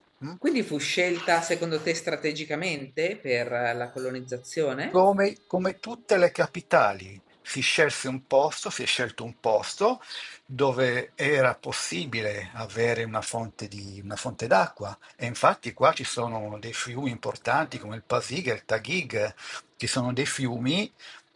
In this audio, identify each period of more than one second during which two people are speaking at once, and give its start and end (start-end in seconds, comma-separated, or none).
none